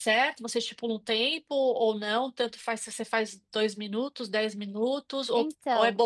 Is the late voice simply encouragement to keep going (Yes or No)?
Yes